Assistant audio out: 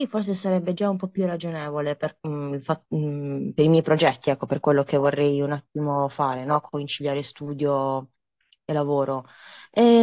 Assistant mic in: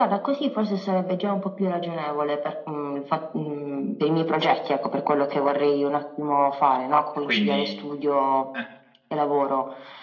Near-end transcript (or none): E quindi... eh,